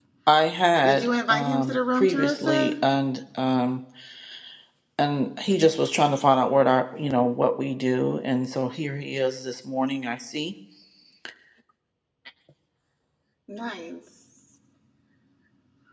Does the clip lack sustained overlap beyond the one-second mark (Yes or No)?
No